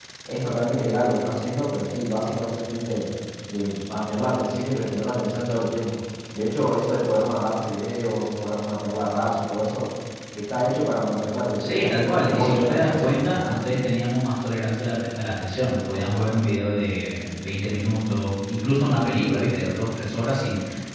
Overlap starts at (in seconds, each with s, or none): 11.6 s